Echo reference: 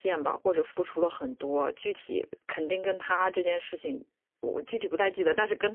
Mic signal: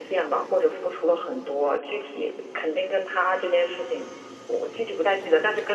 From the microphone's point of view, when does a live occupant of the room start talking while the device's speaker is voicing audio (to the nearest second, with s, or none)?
none